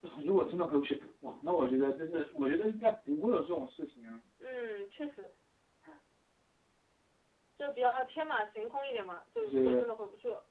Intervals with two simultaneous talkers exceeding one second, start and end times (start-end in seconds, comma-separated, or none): none